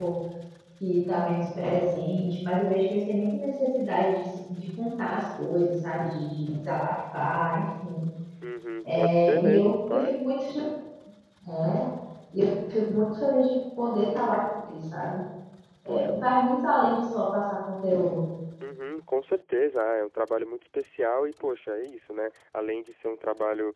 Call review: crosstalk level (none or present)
present